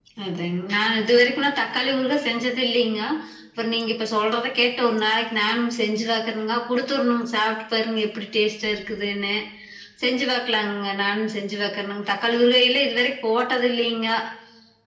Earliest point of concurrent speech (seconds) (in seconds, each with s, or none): none